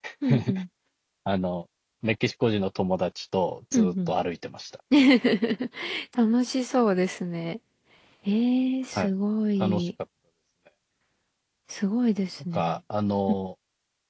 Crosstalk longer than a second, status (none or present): none